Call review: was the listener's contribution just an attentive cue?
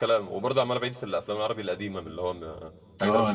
No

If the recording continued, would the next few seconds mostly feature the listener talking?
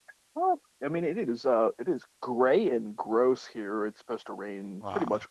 No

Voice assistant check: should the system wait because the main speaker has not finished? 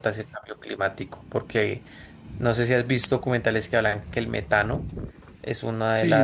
No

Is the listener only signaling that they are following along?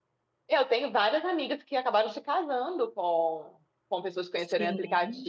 Yes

